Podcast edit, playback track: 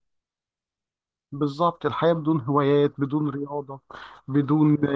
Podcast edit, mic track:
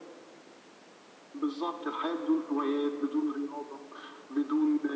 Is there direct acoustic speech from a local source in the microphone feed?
No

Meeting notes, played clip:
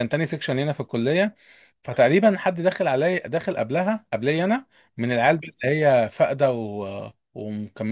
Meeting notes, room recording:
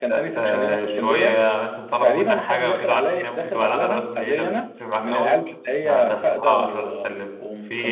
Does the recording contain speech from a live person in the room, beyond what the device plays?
Yes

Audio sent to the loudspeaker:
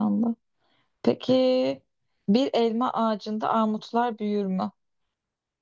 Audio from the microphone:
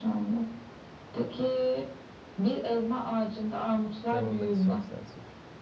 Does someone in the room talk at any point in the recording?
Yes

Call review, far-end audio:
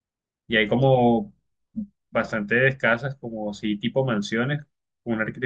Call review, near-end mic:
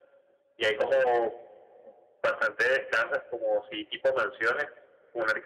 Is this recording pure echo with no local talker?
Yes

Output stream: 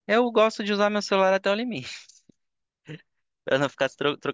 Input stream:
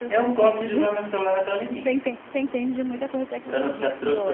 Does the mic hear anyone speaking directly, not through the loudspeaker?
Yes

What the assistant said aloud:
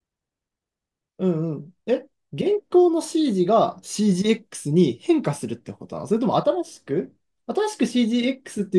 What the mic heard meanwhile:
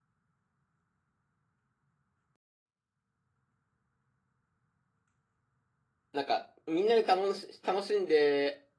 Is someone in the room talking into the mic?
Yes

